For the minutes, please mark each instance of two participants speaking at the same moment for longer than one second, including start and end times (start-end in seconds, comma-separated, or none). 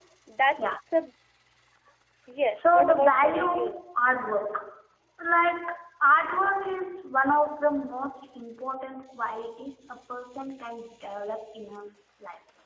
2.5-3.8